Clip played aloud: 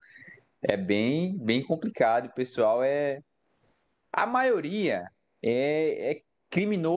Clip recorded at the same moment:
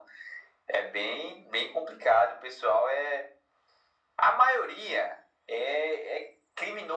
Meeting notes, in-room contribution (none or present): none